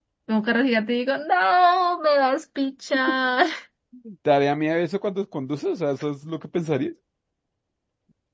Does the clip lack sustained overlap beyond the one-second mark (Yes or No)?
Yes